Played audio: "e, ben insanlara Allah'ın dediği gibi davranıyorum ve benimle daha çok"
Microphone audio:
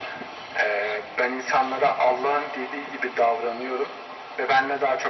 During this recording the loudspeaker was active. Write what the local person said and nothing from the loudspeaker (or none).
none